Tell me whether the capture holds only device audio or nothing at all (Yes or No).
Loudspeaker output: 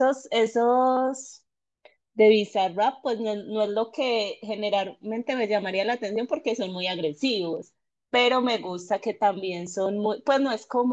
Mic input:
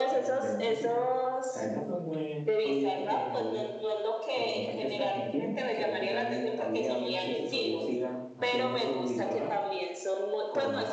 No